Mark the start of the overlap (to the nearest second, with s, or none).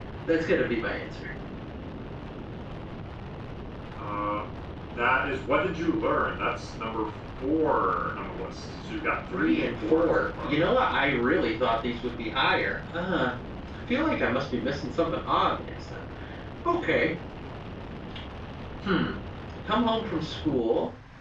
9 s